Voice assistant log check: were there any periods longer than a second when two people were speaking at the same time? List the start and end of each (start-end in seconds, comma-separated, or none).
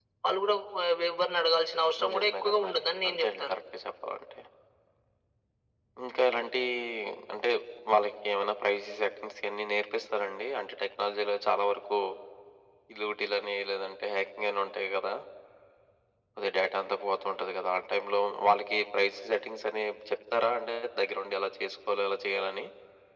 2.0-3.5